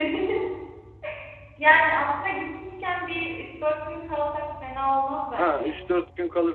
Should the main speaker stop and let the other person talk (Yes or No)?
Yes